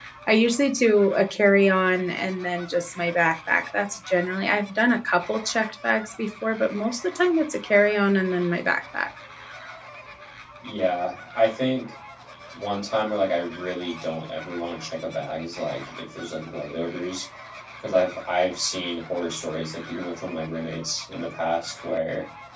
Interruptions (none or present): none